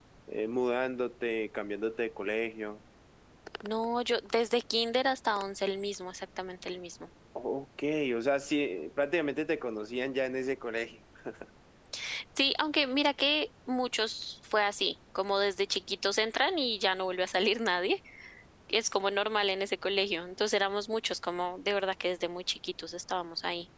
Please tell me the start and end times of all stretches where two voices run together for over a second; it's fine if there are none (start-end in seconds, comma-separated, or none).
none